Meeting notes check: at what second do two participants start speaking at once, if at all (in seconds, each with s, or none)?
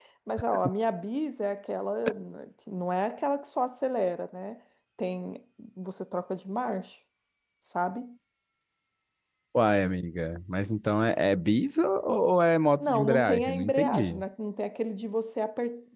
12.8 s